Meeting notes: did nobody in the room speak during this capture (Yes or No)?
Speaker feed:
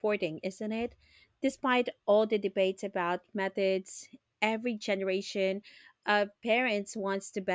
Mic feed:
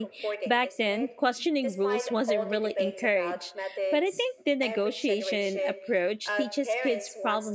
No